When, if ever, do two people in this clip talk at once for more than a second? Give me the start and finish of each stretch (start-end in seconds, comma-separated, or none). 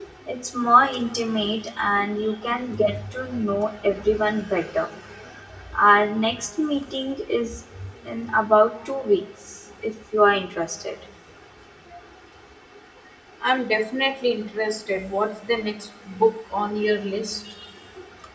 none